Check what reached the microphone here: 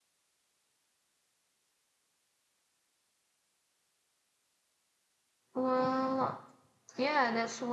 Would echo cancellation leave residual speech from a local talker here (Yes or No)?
Yes